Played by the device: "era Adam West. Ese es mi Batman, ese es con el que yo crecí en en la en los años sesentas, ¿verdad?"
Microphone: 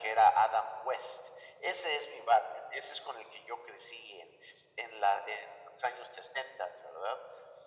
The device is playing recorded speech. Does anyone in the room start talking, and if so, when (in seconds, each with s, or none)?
none